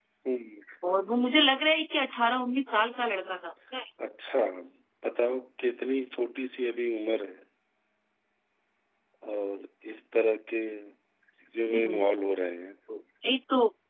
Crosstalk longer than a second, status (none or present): none